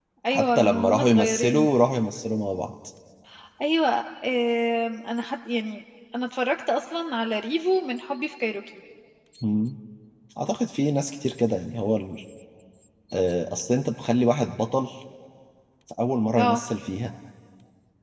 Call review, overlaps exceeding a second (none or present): present